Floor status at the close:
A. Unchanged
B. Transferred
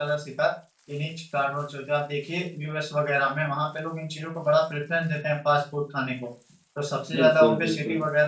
A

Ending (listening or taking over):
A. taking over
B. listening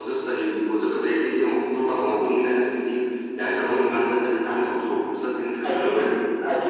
A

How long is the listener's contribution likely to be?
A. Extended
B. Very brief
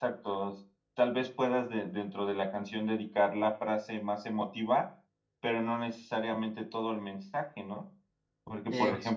B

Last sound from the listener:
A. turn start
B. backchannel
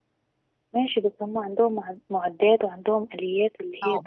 A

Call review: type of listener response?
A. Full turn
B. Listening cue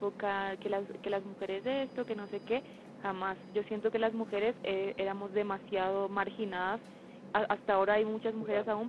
B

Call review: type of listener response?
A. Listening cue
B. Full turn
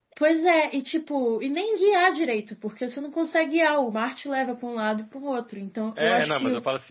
B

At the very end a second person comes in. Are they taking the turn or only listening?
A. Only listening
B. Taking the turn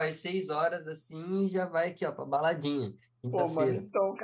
B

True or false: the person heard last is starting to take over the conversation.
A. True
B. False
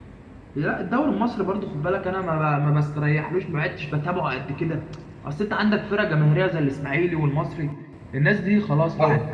B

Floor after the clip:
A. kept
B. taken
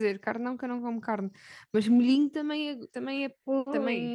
B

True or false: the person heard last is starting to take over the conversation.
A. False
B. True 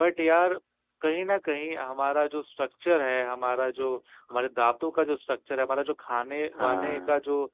A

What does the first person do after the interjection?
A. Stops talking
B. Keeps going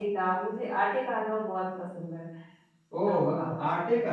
A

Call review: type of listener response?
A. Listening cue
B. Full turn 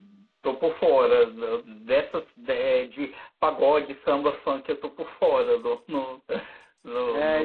B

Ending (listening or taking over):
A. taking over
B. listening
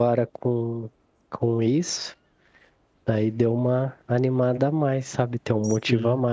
B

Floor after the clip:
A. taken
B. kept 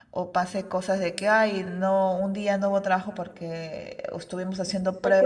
A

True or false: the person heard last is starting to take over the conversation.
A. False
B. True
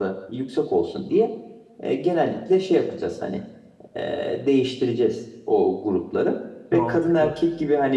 A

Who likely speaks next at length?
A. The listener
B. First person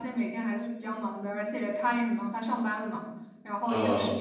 B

